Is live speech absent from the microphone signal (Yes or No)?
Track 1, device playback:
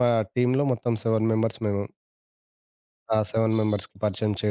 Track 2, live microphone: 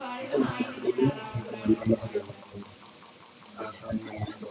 No